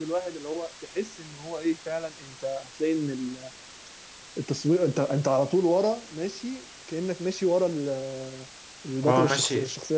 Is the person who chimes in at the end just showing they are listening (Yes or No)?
No